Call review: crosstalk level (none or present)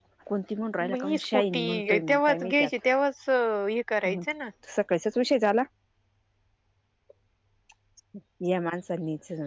present